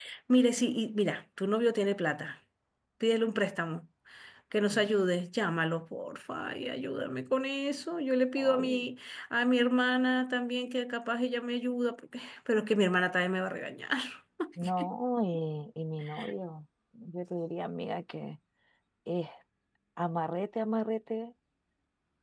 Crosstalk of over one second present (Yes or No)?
No